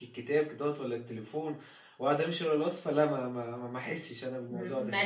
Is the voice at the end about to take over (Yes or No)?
Yes